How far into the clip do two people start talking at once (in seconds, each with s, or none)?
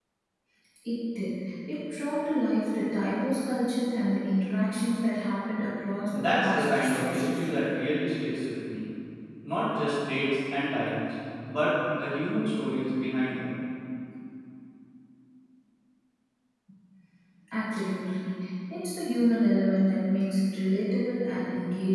6.1 s